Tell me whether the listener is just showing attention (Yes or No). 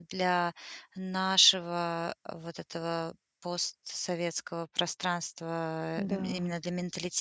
Yes